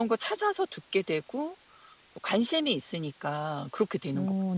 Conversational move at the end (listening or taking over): taking over